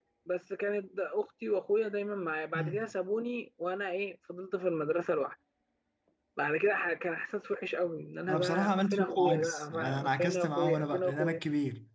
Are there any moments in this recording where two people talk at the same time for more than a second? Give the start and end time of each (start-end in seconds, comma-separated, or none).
8.3-11.4